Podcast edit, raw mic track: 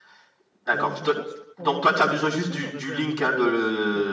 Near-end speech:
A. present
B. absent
A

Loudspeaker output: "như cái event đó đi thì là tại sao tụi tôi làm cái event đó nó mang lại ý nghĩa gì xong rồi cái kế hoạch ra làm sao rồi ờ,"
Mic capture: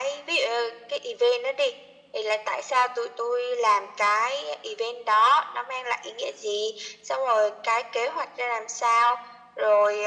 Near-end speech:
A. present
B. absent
B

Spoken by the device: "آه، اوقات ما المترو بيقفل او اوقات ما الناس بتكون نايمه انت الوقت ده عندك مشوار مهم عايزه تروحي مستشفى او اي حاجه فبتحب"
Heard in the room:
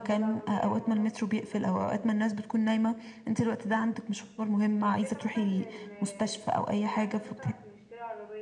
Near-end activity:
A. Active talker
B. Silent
A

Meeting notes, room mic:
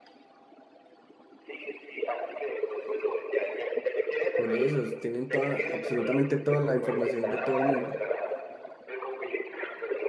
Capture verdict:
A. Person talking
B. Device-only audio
A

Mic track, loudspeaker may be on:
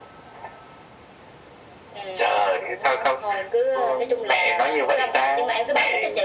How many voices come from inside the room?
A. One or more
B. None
B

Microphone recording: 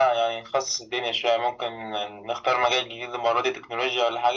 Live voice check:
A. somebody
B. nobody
B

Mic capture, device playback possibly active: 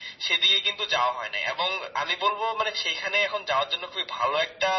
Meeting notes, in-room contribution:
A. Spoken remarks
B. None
B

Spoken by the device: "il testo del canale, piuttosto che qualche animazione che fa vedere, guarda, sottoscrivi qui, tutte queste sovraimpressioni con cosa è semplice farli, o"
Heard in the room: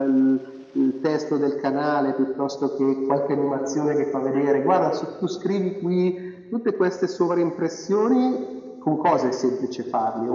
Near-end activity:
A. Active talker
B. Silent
B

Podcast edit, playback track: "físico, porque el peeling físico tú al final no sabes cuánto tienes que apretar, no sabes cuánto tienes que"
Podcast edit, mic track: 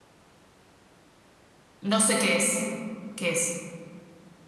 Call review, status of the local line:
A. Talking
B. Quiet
A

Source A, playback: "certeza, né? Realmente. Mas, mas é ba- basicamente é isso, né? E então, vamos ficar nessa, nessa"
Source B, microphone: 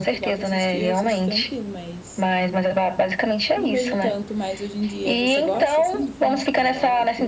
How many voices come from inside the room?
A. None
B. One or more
B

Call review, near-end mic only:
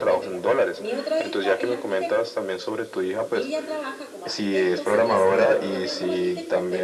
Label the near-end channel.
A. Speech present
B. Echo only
A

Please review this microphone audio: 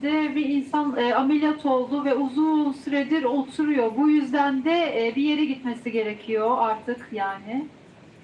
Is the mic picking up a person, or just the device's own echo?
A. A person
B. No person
B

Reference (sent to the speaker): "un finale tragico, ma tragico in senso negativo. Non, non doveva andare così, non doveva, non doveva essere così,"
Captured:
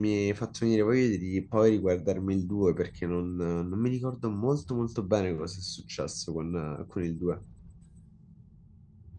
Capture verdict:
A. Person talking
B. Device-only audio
A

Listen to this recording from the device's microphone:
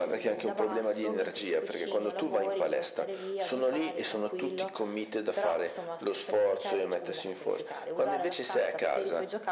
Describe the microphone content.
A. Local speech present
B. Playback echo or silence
B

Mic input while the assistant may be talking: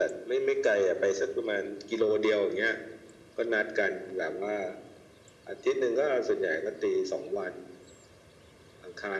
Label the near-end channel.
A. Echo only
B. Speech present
A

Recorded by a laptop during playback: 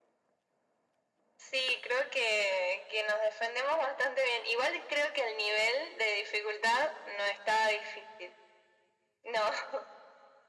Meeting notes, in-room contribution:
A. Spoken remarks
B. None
B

